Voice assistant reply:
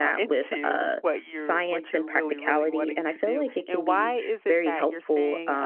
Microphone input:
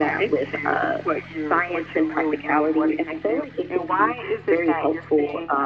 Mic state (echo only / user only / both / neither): echo only